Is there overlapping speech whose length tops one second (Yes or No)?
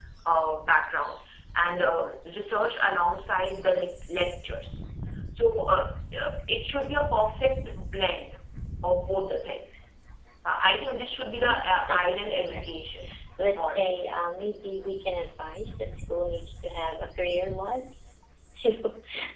Yes